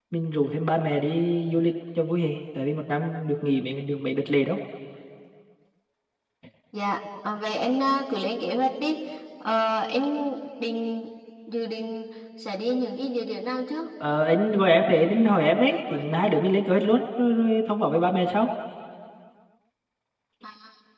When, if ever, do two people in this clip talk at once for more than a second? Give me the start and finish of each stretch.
none

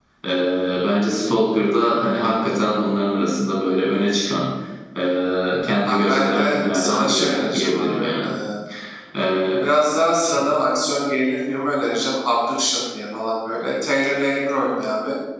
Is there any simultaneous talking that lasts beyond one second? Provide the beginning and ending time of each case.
5.9-8.3

